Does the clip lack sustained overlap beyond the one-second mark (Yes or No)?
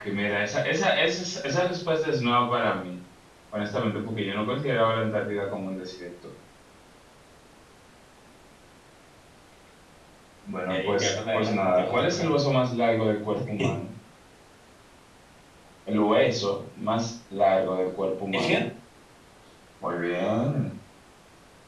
No